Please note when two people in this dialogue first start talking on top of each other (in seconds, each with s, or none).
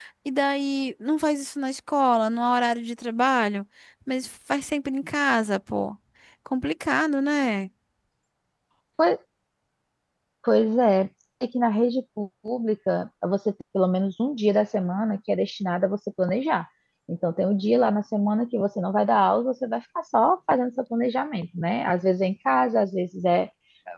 none